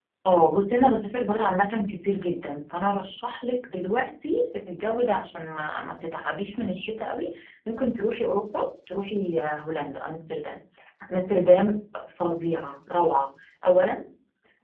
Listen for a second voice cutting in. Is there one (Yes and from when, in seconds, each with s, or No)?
No